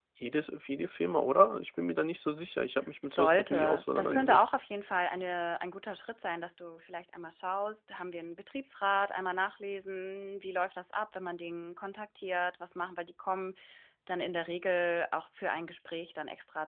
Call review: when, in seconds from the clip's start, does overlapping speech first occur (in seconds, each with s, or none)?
3.1 s